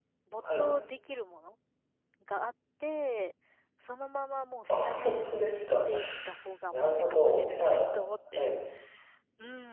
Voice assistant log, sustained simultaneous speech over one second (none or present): present